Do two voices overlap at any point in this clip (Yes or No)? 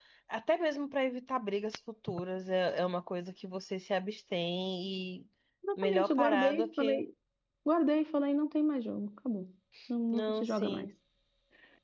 Yes